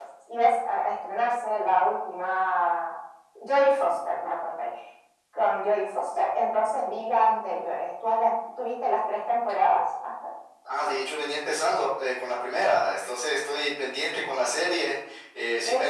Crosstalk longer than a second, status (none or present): none